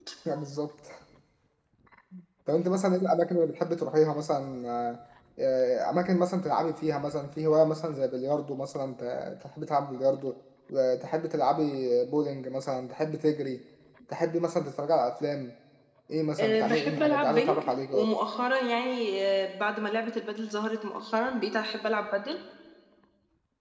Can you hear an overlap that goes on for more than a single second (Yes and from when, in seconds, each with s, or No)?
Yes, from 16.4 s